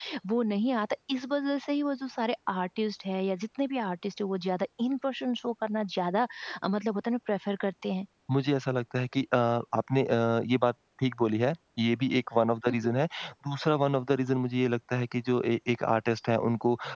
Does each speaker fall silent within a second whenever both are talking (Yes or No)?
Yes